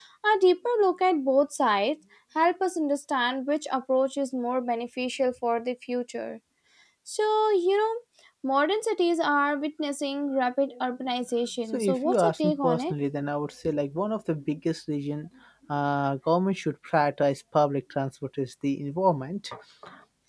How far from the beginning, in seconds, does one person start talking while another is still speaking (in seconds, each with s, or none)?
11.7 s